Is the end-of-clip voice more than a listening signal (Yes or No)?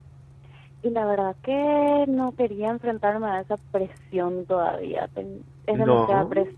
No